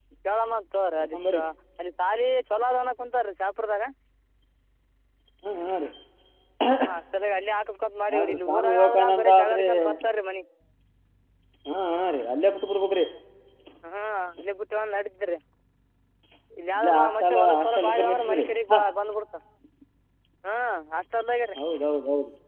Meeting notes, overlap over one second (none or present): present